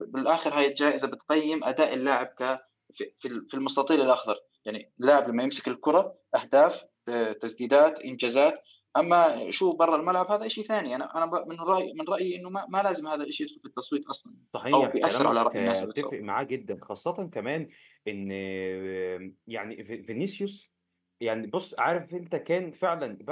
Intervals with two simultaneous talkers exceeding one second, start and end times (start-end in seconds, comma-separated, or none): 14.7-16.1